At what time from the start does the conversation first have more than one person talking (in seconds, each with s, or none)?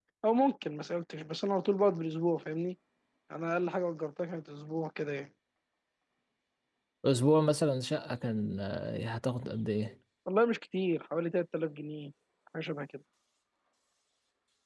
none